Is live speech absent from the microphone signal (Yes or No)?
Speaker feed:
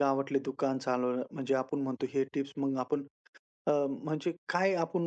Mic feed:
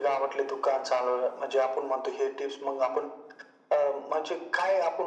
Yes